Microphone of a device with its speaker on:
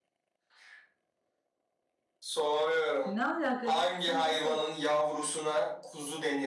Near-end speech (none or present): present